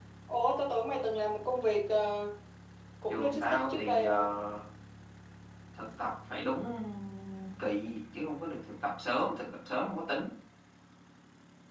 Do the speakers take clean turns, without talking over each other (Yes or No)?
No